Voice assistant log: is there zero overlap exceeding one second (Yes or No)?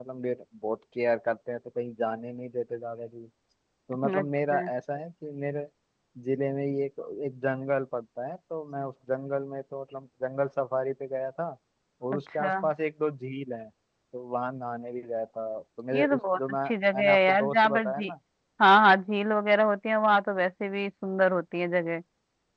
No